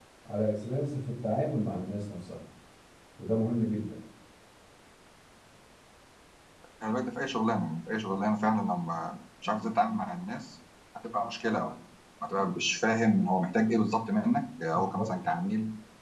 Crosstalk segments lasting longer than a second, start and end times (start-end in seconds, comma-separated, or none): none